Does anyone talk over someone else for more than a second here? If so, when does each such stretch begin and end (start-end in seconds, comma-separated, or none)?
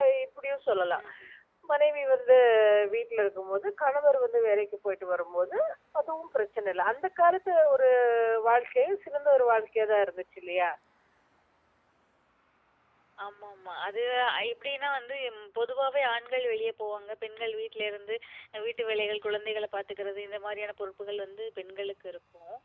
none